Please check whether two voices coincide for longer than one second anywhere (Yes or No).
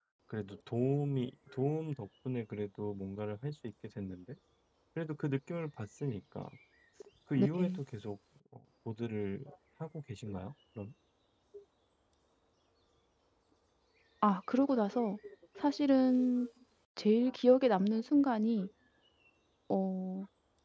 No